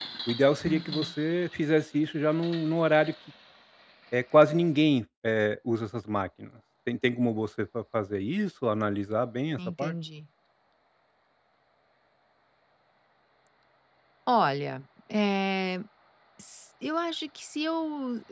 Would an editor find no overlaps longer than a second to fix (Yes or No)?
Yes